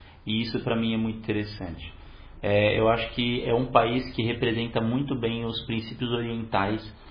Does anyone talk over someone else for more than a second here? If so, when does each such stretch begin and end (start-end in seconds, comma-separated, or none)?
none